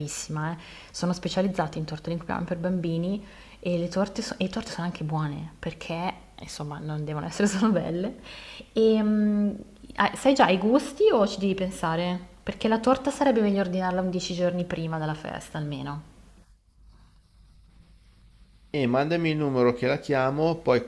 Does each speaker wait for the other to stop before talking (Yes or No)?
Yes